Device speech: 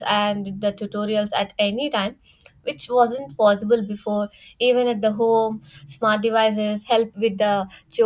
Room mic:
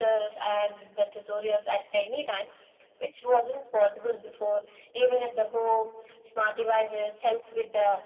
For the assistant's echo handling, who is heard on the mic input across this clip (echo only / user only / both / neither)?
echo only